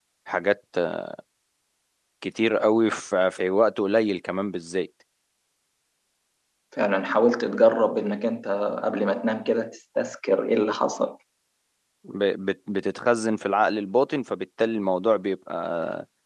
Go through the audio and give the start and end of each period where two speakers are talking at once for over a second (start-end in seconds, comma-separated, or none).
none